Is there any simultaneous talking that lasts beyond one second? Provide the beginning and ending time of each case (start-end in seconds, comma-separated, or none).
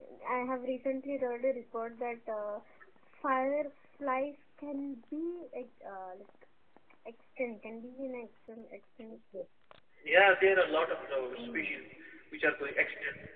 none